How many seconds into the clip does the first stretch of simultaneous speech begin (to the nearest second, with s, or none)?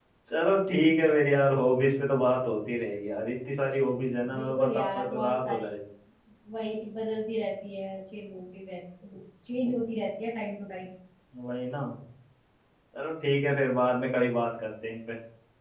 4 s